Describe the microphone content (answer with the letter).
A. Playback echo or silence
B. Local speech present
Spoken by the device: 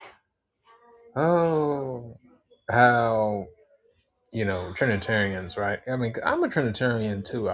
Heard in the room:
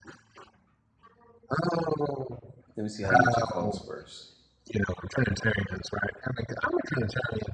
B